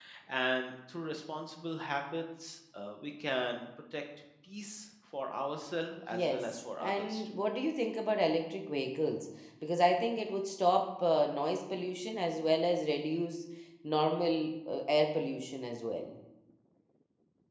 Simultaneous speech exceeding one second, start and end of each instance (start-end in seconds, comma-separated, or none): 6.1-7.3